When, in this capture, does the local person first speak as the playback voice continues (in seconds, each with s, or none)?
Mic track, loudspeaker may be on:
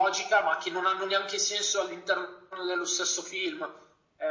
none